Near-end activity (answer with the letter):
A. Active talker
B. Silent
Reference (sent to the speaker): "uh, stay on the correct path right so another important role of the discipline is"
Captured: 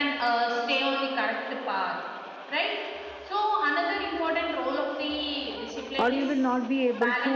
A